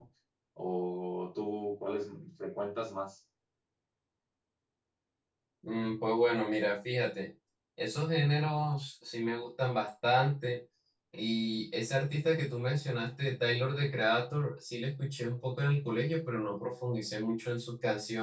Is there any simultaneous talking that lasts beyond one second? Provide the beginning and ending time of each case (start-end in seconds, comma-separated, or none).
none